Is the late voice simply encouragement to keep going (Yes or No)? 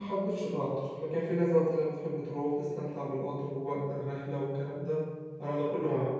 Yes